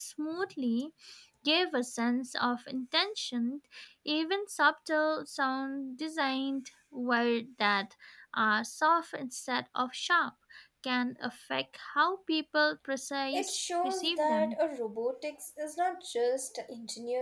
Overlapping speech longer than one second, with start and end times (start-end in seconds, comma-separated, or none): 13.3-14.6